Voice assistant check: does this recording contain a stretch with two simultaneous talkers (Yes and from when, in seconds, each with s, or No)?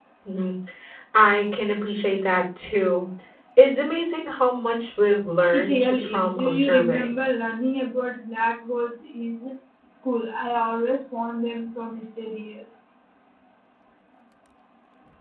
Yes, from 5.5 s